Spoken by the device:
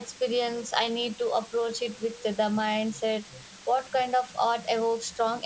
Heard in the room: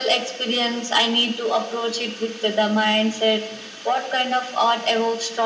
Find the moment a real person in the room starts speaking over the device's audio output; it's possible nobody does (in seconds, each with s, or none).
none